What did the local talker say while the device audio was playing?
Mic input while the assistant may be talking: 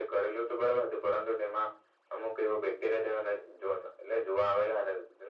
none

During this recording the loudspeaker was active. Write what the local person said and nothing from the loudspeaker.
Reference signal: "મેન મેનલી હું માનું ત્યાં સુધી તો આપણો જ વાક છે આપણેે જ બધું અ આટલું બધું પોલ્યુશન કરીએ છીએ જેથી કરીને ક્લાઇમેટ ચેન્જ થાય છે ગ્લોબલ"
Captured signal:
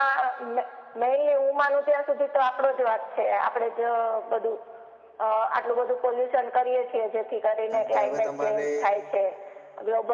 કારણ કે હવે તમારે

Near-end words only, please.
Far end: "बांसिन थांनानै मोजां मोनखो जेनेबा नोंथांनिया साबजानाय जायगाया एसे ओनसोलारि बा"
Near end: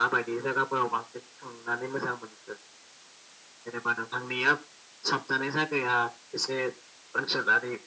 none

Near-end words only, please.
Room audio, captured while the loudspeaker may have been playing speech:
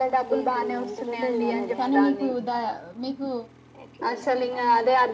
ఊ కానీ మీకు ద మీకు

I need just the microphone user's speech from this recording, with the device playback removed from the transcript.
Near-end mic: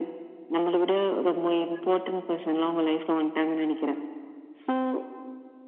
none

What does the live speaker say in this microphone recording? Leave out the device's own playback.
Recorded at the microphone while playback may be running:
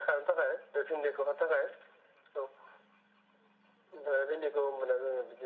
none

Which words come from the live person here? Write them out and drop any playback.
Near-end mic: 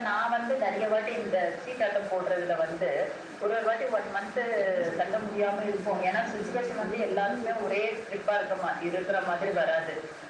என்ன சொல்றதுன்னா நூறு ரூபா ஏரநூறுபா நம்ம கைல எவ்ளோ இருக்கோ

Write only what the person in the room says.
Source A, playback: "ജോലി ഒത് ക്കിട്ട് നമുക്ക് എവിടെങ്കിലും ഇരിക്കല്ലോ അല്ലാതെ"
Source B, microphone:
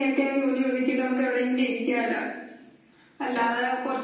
none

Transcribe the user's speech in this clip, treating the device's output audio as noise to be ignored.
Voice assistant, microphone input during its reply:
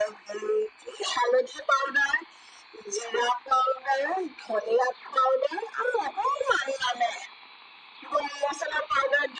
none

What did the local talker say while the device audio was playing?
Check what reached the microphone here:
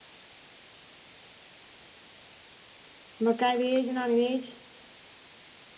मका वेज नॉन वेज

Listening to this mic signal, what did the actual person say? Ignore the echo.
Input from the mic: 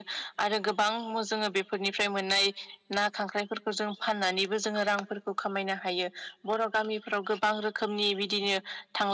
none

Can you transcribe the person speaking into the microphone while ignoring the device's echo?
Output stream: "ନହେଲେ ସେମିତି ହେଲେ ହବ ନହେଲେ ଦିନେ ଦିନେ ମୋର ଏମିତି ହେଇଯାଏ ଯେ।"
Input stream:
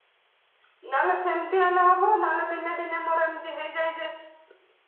none

